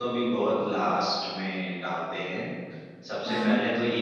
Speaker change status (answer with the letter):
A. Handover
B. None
B